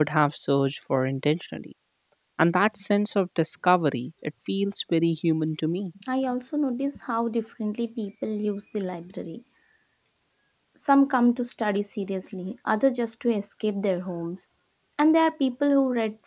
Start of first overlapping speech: none

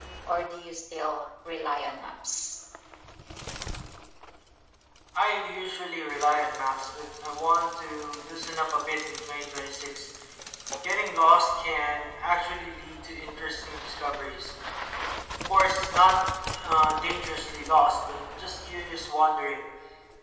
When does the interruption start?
none

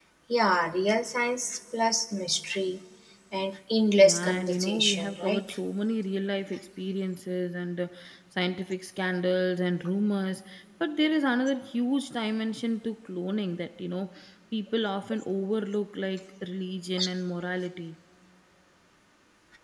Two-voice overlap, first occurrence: 4.0 s

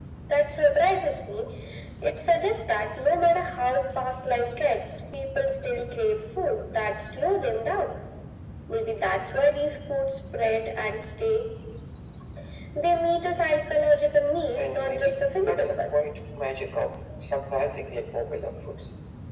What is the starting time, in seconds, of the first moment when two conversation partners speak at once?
14.6 s

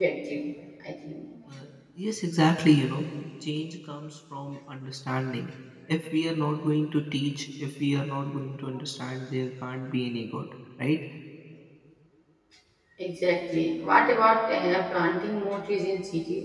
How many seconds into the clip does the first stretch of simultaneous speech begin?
none

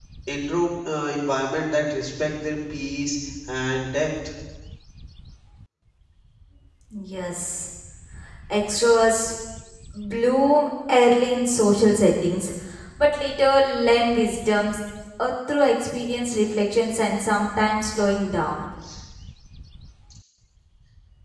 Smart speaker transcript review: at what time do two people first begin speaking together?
none

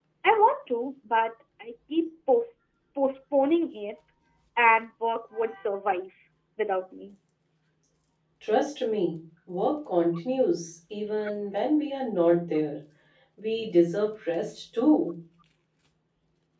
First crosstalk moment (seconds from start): none

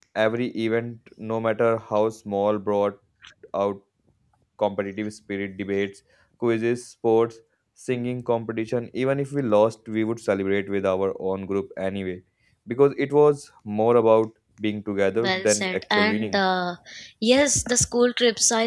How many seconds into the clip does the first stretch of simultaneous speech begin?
15.2 s

